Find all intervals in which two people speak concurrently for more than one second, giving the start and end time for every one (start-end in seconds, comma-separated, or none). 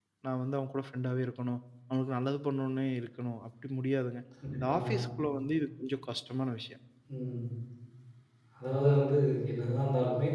none